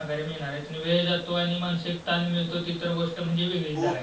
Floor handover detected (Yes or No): Yes